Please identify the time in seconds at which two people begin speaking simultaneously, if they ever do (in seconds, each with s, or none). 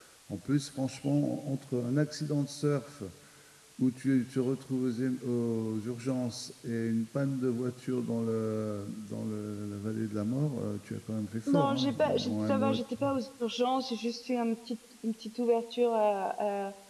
11.5 s